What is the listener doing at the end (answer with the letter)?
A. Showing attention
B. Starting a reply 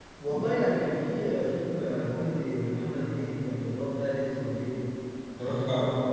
A